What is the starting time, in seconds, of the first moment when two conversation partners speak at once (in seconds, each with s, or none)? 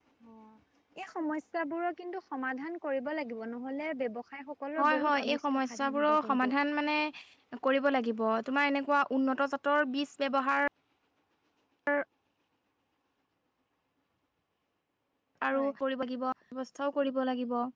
4.8 s